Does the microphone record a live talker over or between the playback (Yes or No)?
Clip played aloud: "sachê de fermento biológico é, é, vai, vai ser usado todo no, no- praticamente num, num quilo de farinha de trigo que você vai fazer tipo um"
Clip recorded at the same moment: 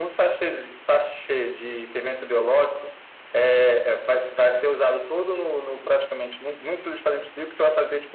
No